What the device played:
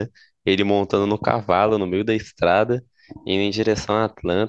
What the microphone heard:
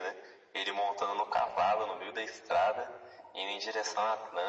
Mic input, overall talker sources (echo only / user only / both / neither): echo only